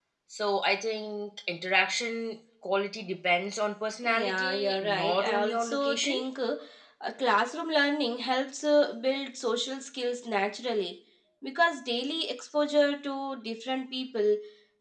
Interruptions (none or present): present